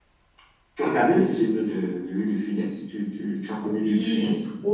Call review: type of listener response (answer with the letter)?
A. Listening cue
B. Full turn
B